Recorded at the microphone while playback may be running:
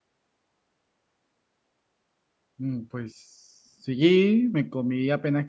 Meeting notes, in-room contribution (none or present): present